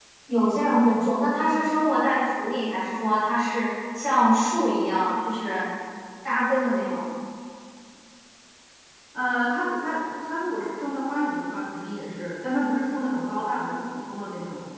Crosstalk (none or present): none